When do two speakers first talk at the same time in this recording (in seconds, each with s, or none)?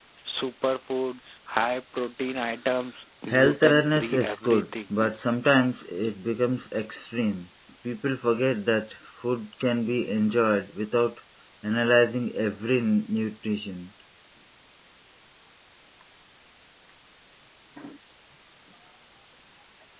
3.3 s